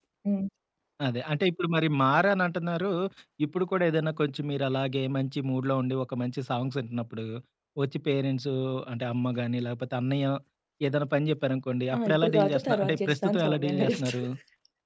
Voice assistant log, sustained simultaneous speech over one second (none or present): present